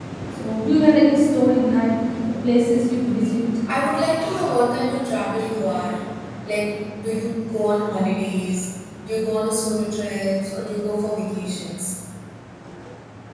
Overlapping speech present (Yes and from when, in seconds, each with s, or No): No